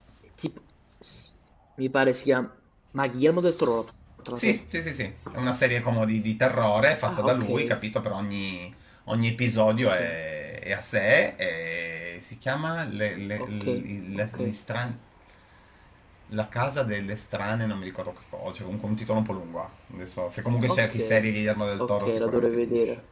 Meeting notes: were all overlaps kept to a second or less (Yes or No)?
No